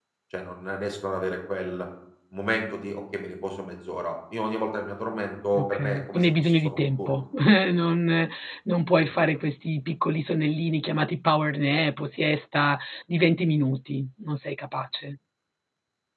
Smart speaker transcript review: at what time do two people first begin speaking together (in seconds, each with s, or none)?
5.5 s